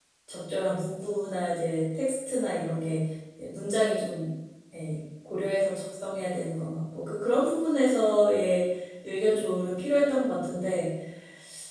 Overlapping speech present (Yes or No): No